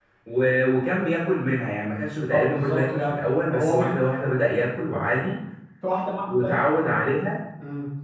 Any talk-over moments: Yes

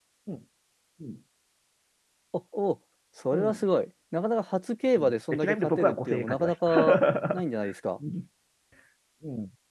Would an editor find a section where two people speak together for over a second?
Yes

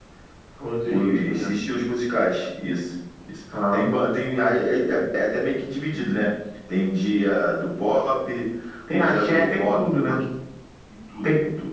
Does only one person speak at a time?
No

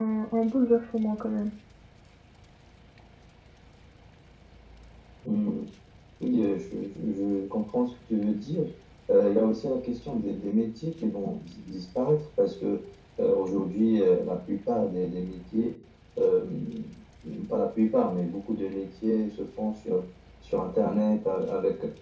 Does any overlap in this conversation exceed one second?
No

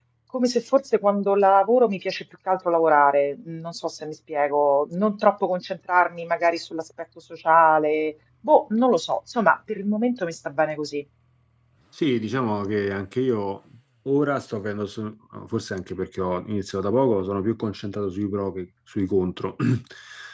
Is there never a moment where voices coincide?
Yes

